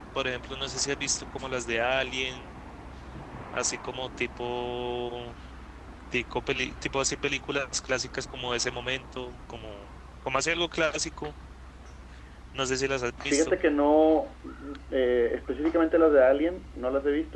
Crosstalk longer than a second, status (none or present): none